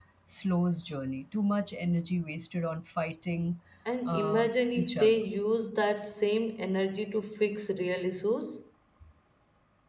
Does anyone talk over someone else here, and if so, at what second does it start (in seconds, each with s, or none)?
4.0 s